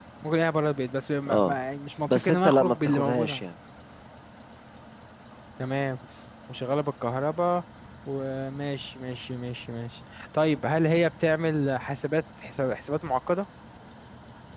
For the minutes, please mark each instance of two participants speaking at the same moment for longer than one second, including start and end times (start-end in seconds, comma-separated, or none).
2.1-3.3